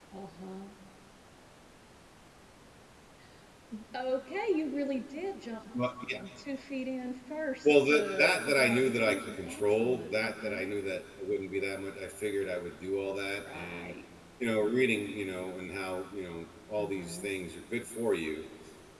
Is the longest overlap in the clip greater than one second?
Yes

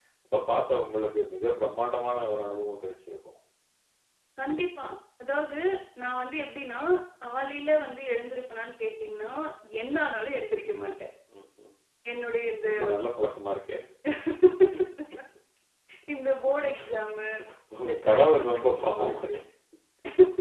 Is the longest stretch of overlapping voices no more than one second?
No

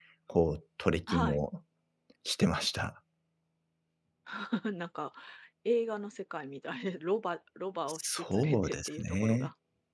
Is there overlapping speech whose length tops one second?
Yes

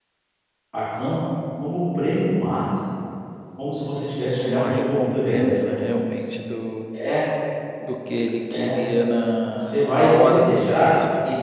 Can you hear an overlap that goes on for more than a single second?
Yes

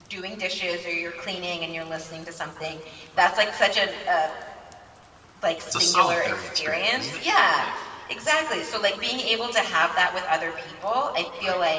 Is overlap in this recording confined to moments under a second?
No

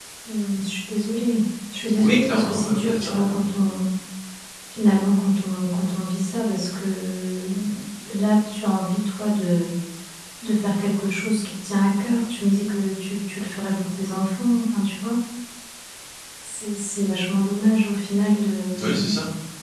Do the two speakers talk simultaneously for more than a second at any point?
Yes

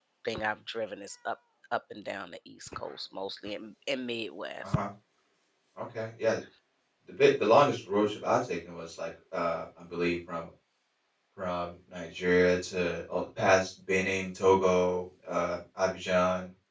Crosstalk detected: No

